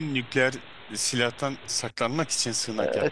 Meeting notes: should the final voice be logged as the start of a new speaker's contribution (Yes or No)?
Yes